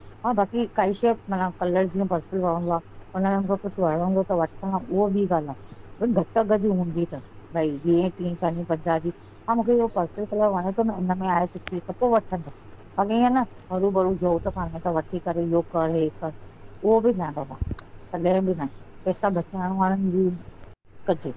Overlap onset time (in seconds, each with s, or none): none